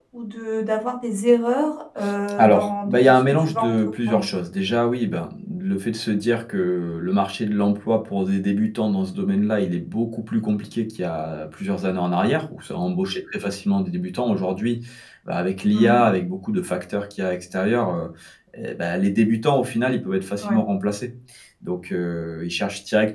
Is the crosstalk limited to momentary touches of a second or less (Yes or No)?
No